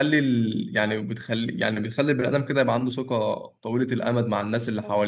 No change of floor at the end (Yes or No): No